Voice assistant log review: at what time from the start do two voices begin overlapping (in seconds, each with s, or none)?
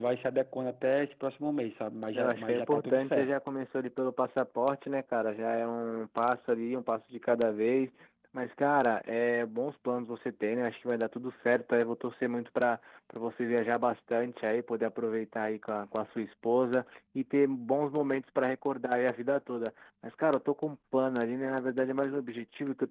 2.1 s